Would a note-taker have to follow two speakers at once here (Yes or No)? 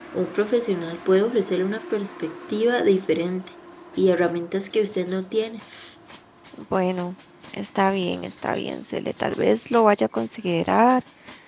No